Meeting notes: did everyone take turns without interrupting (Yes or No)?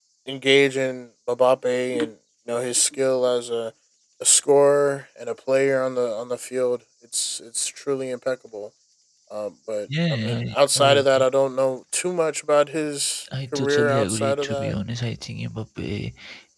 No